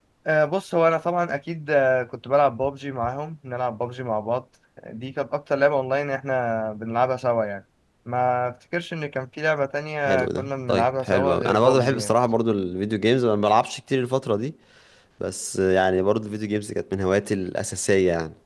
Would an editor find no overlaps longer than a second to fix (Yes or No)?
No